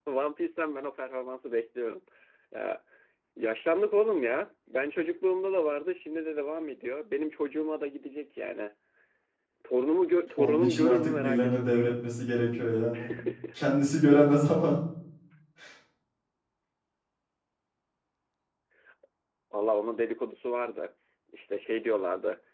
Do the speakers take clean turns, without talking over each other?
No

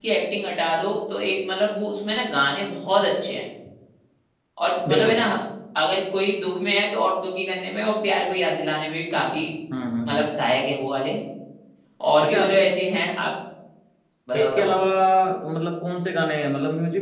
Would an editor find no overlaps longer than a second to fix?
Yes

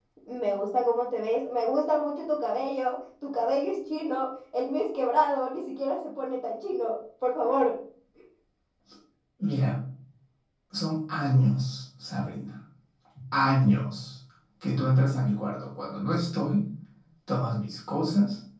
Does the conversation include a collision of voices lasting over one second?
No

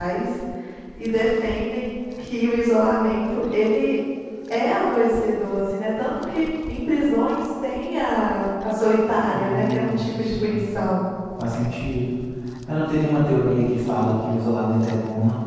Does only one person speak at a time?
No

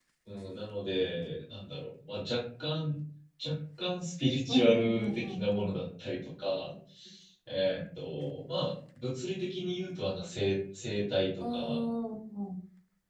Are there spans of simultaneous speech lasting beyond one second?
Yes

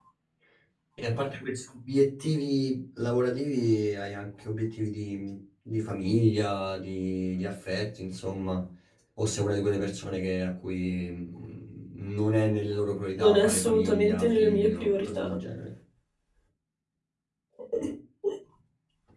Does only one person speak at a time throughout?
No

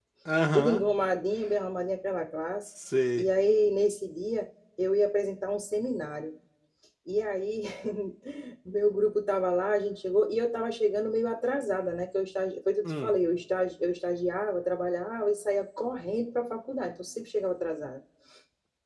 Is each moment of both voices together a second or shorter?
Yes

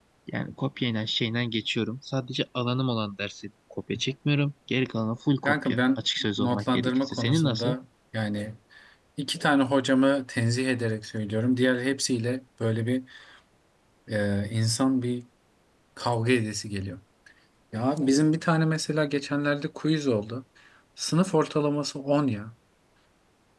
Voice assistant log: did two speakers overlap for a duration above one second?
Yes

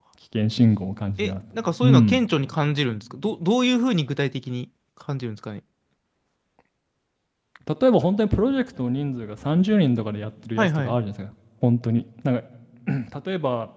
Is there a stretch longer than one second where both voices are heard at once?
No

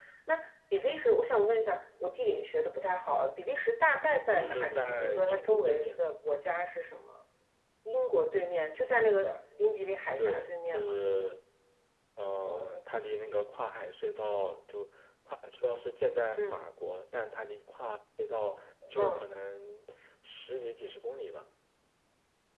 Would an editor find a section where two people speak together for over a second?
Yes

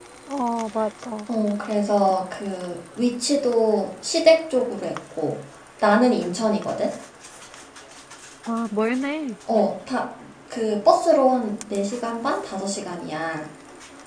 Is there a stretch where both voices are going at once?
No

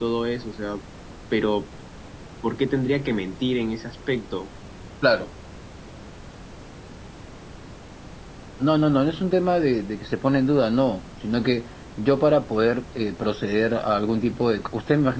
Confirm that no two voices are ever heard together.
Yes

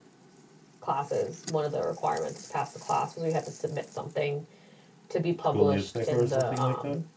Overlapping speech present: Yes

